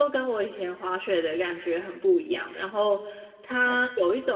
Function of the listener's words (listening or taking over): listening